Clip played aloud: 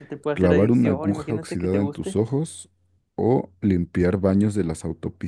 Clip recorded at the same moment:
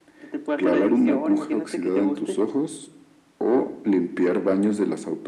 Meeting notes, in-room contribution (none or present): none